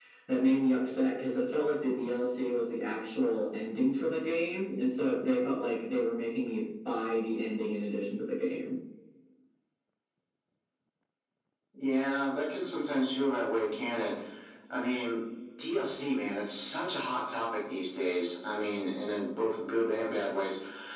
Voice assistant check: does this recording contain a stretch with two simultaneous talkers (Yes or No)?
No